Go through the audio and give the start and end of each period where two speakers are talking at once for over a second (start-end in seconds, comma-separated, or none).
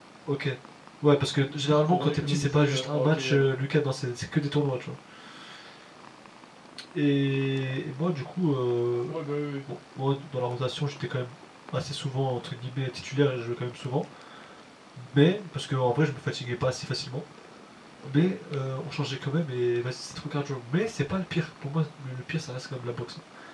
1.5-3.5